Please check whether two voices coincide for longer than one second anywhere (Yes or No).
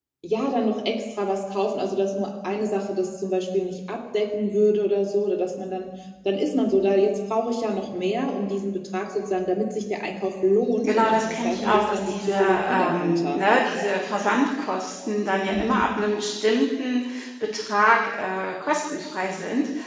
Yes